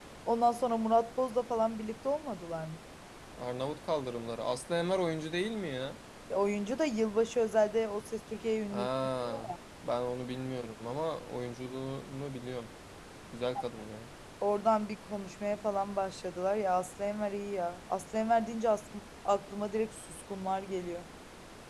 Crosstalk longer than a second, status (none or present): none